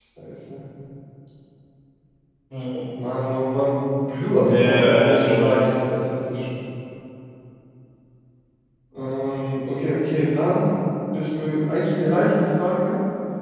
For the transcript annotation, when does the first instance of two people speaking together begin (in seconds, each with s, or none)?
4.4 s